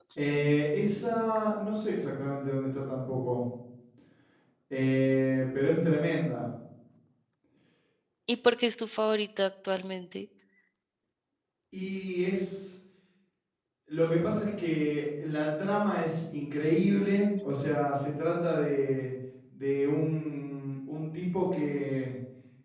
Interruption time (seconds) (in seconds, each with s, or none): none